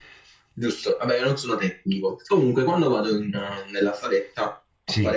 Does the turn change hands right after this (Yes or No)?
No